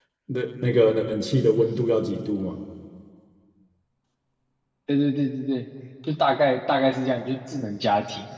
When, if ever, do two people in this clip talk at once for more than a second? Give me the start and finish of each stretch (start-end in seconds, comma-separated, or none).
none